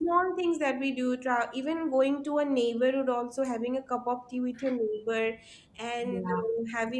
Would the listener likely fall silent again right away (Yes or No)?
Yes